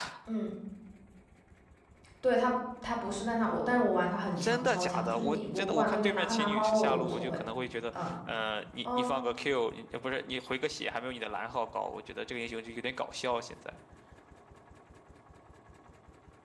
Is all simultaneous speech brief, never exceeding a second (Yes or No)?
No